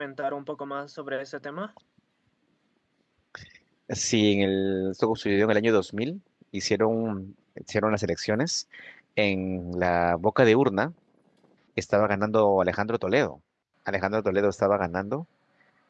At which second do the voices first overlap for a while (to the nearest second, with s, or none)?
none